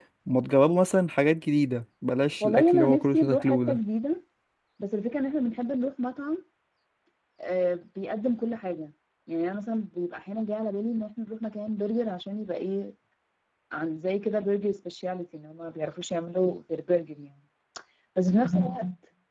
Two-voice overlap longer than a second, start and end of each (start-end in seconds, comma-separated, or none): 2.4-3.8